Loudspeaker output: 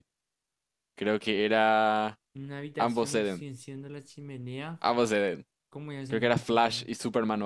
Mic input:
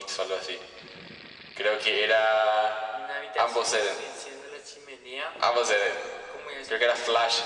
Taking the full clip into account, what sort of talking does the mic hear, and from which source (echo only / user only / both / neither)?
echo only